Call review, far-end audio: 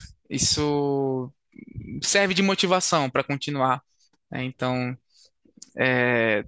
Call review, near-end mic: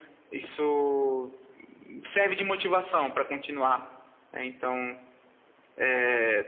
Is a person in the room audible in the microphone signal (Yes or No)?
No